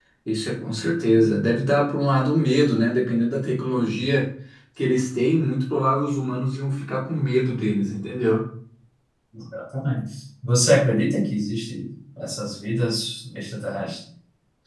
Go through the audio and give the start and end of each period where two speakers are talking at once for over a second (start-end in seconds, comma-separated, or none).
none